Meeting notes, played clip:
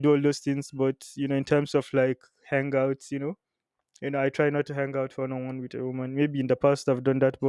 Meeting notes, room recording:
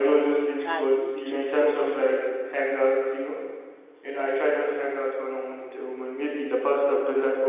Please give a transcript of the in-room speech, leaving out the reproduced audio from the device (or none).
a child in between the two of you,